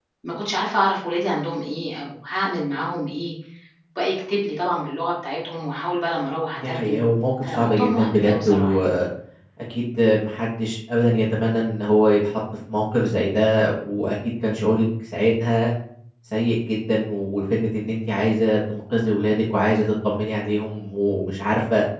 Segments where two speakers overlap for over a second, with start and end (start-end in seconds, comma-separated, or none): 7.4-8.8